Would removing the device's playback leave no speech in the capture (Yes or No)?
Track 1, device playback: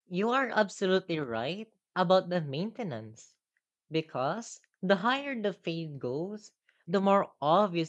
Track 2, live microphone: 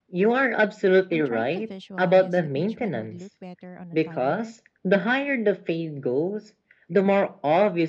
No